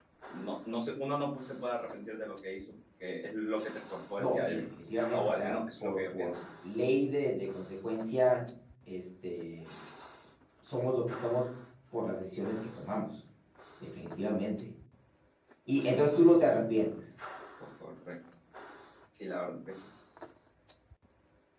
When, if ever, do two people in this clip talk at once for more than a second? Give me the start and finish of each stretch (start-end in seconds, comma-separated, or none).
5.1-6.4